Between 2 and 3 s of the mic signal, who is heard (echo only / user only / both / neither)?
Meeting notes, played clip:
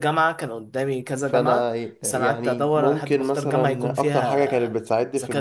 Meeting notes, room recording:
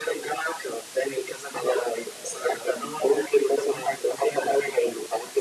echo only